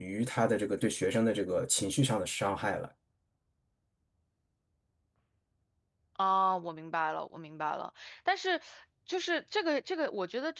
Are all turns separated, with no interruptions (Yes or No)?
Yes